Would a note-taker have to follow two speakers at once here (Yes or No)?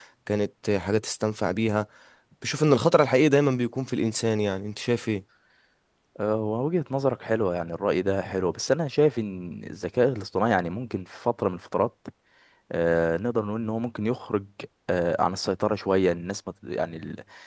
No